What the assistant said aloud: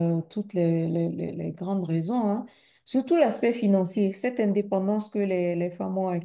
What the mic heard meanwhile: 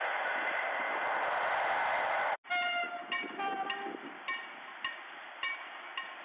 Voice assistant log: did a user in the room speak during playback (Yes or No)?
No